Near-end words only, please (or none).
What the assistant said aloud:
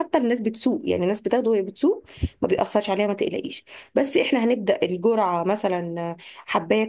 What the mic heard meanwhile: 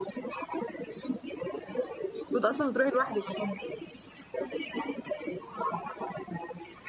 كنت اصلا بتروحي لوحدك